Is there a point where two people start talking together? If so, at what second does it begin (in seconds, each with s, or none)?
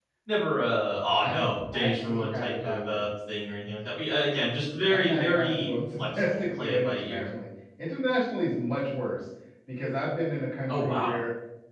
1.1 s